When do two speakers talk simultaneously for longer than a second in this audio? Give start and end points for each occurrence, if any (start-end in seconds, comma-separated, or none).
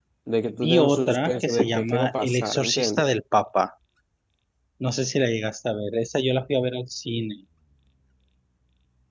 0.6-3.1